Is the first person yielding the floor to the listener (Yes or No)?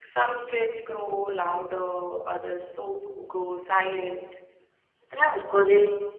Yes